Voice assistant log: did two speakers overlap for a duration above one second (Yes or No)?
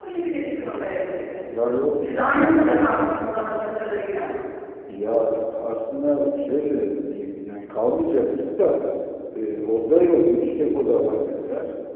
No